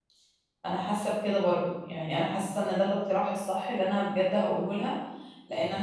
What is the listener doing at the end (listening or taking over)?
listening